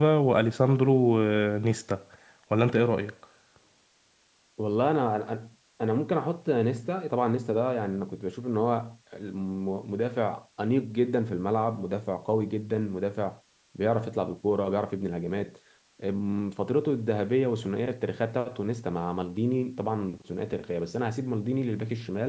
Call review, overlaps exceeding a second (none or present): none